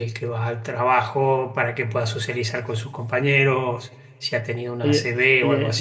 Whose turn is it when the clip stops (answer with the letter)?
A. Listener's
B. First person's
A